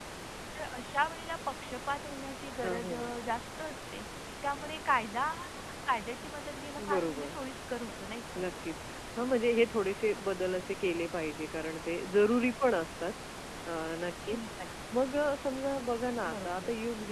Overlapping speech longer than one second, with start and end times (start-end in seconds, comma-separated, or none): none